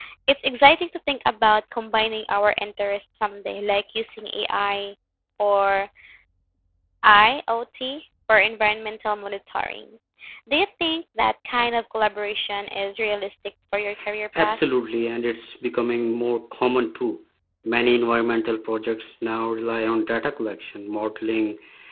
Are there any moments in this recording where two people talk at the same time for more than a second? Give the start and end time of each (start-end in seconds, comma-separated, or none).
none